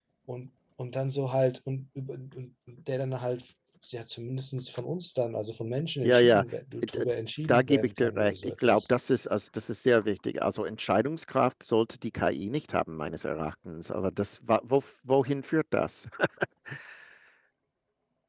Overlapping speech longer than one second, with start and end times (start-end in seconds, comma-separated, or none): 7.5-8.8